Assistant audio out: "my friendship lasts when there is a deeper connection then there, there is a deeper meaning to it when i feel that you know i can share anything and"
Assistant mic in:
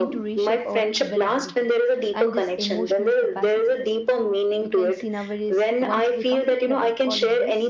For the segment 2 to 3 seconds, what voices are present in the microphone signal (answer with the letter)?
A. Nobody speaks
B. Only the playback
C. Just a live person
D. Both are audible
D